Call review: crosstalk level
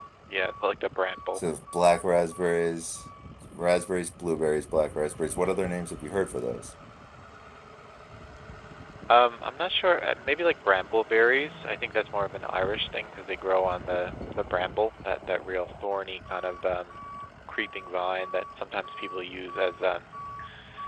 none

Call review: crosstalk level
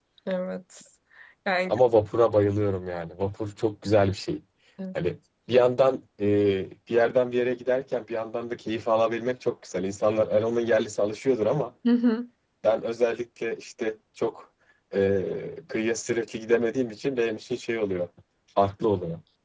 none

